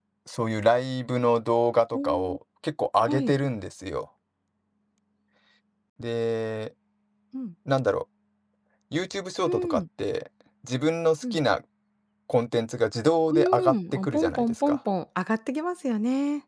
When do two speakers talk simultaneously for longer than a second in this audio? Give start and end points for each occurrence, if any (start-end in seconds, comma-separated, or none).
13.3-14.8